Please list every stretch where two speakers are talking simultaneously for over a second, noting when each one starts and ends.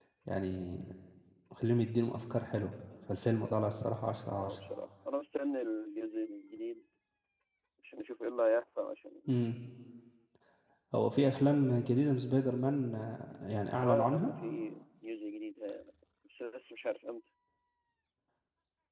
none

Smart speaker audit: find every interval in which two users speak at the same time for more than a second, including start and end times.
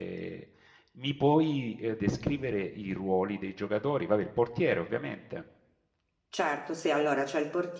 none

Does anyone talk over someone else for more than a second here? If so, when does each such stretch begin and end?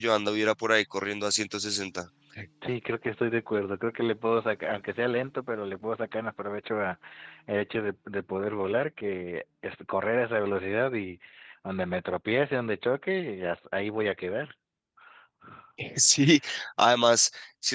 none

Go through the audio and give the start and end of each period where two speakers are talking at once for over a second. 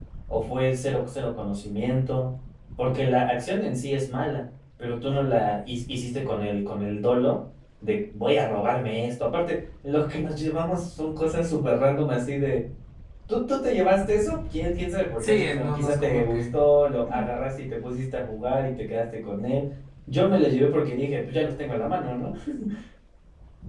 15.2-16.6

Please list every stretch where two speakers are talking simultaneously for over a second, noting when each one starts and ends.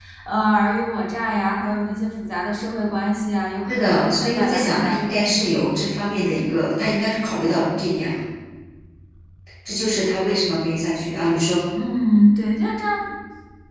3.7-5.6

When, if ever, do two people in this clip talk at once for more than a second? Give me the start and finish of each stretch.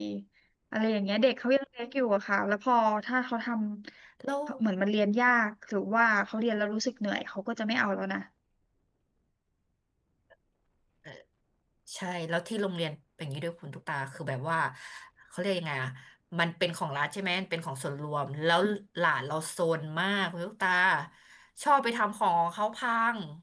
none

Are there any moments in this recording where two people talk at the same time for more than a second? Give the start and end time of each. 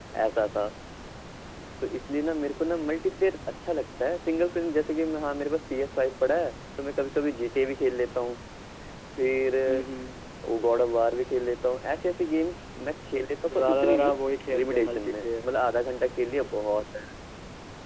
13.6-15.5

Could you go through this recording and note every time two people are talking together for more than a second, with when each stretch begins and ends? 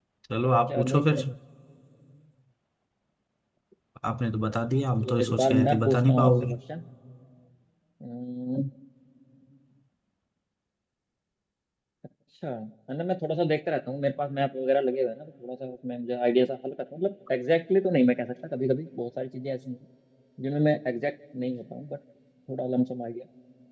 5.0-6.6

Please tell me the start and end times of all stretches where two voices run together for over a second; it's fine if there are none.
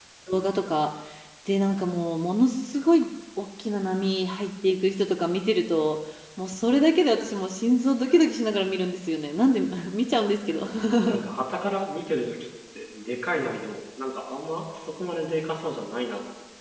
none

